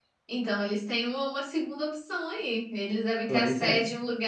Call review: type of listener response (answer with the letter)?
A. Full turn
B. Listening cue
B